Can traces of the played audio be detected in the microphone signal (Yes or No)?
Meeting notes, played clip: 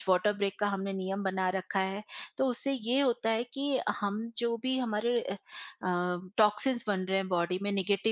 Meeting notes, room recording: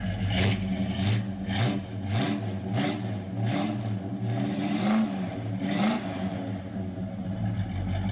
No